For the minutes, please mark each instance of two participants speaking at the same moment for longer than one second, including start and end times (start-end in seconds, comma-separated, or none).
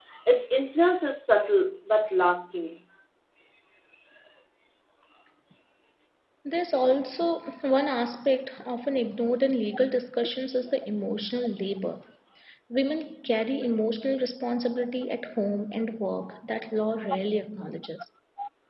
none